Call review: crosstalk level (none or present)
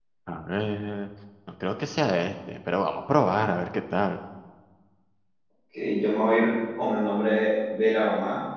none